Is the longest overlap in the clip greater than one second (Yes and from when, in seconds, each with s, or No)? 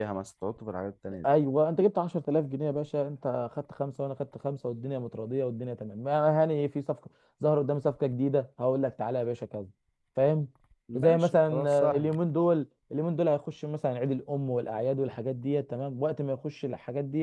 Yes, from 11.0 s